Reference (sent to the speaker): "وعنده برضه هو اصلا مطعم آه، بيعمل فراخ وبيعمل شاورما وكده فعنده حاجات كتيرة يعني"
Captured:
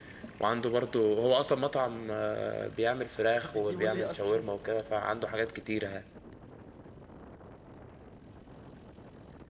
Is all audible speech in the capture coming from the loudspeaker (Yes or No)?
No